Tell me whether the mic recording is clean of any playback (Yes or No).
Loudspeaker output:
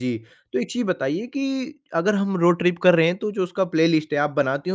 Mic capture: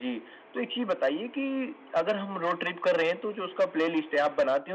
No